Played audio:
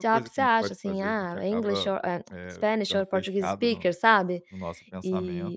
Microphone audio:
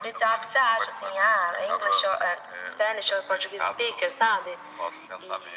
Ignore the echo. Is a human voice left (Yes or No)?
No